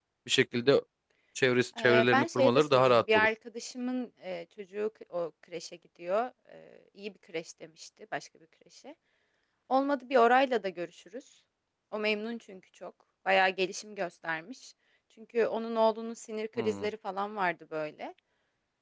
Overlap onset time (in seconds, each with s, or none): 1.8 s